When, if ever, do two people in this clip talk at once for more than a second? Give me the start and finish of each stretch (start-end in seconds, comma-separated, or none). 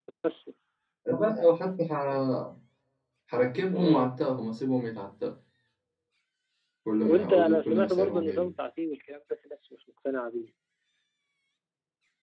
7.0-8.5